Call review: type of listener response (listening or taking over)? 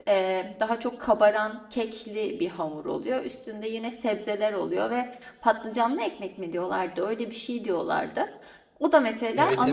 taking over